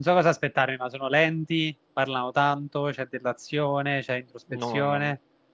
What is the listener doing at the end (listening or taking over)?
taking over